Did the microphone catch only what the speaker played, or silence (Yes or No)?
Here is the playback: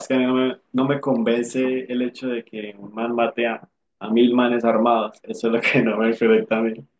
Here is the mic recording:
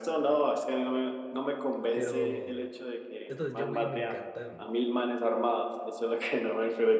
No